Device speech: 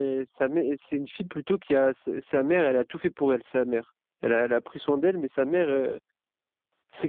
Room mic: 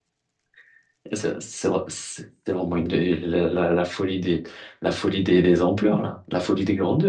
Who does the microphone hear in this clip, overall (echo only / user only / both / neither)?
user only